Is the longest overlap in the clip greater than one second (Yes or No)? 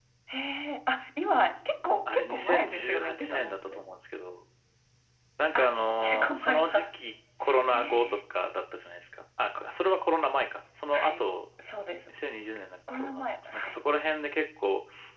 Yes